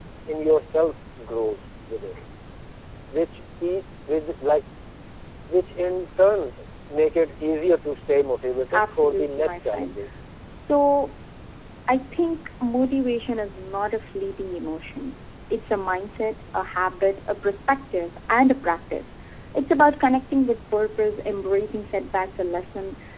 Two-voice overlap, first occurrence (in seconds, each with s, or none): 8.7 s